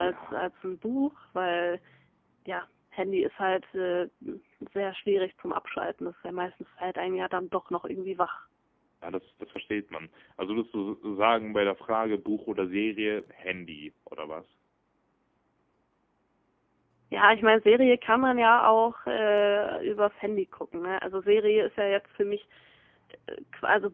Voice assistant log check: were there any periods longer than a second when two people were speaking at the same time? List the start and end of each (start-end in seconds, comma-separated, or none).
none